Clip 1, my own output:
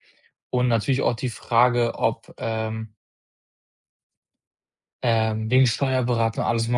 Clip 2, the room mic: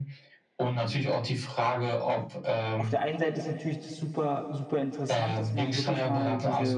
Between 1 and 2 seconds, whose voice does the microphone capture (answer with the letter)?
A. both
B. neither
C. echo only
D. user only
C